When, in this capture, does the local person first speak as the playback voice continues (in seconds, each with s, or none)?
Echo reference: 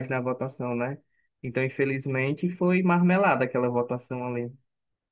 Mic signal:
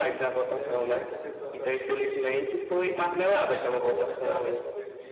0.5 s